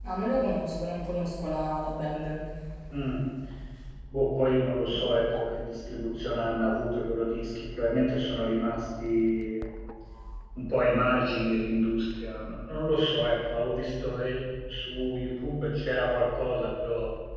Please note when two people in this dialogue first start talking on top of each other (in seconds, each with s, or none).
none